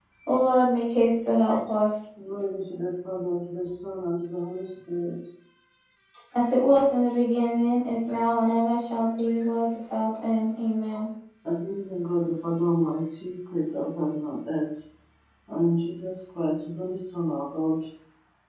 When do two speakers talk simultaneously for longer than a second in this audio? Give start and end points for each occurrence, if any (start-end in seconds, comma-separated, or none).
none